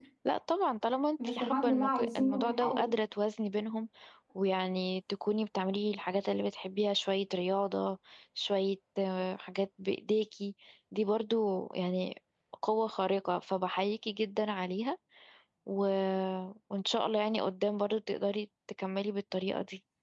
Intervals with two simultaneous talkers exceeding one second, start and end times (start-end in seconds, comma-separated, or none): 1.2-2.9